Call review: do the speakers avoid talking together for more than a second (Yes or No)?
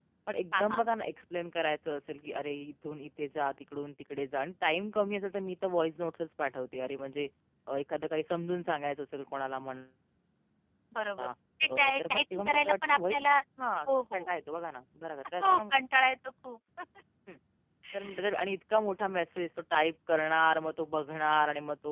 No